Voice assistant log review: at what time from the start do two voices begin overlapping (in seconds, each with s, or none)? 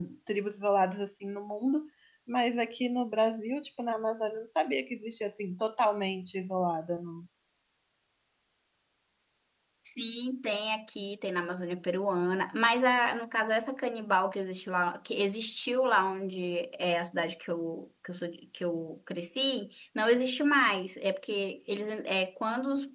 none